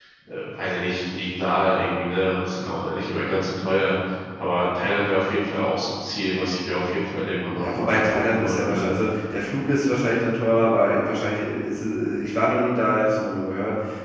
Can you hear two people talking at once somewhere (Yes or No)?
Yes